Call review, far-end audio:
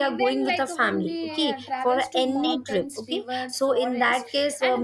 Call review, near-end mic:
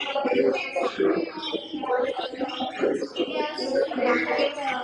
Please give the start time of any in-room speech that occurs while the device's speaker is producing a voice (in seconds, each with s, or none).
3.2 s